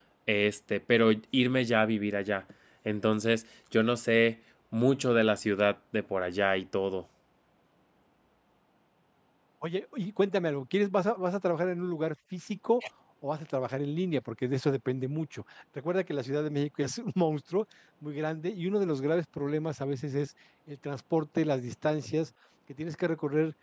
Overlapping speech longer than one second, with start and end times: none

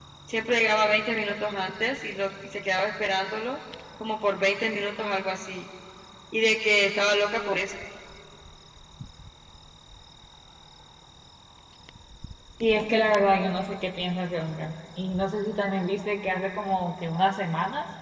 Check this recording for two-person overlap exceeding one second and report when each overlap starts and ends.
none

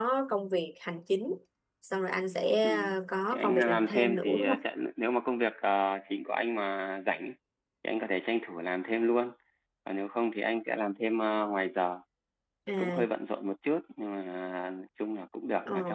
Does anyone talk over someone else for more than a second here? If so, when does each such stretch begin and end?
3.3-4.6

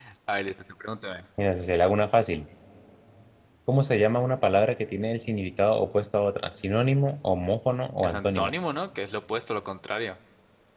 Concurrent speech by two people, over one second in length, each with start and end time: none

